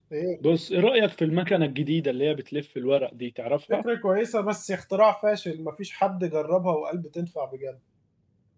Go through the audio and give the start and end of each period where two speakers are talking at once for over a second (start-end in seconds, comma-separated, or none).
none